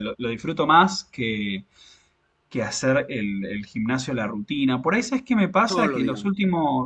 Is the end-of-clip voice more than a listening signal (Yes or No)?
No